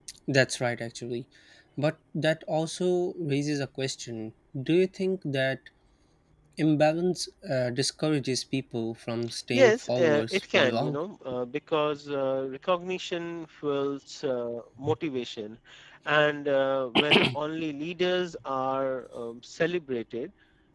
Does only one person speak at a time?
No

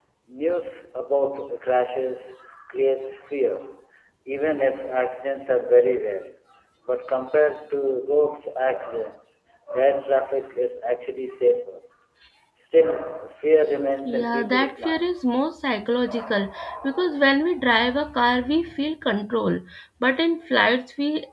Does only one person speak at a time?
No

